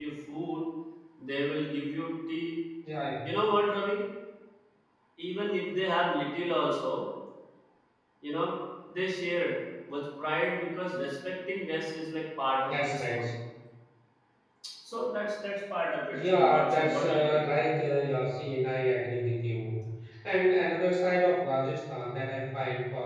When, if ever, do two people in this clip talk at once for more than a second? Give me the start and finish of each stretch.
16.1-17.4

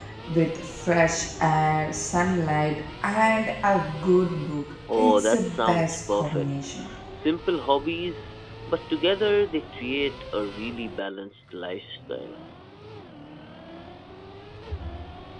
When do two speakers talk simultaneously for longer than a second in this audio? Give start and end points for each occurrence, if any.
5.0-6.5

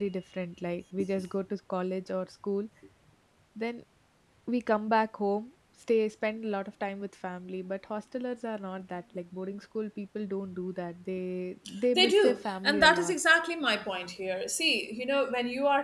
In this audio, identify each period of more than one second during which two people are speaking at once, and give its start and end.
11.9-13.1

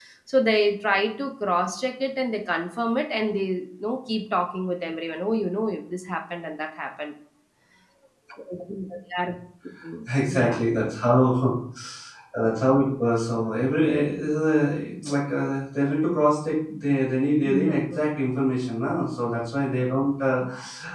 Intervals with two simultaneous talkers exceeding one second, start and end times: none

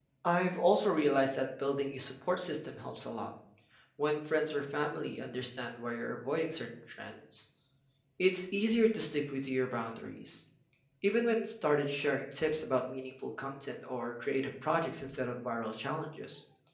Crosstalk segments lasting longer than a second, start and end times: none

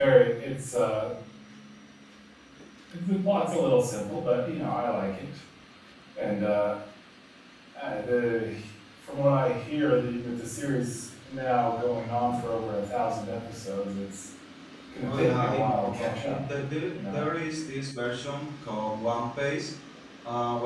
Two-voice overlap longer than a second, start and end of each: 15.0-16.4

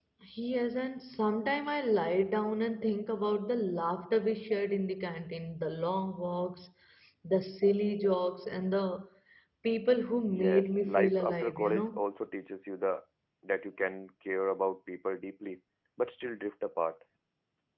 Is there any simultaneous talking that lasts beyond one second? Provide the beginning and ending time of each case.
10.3-12.0

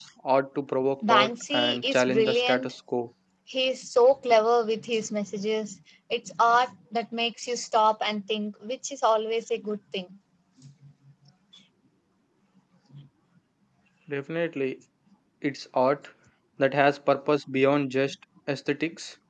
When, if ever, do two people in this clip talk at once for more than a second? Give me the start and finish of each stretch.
1.1-2.7

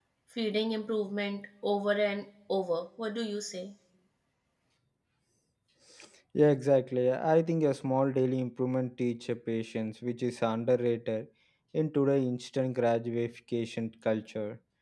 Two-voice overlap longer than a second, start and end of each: none

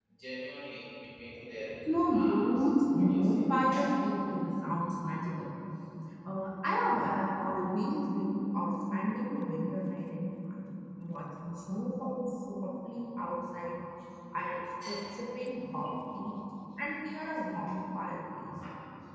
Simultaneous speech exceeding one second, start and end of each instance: 2.1-3.4

